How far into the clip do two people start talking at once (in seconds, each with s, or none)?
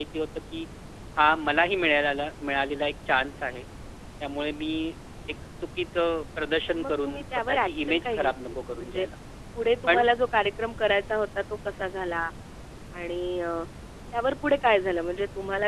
6.7 s